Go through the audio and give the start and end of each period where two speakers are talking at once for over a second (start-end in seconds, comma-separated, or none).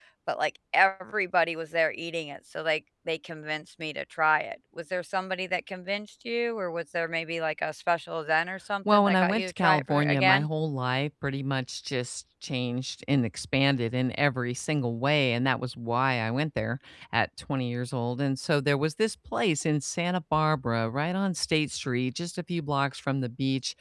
8.9-10.5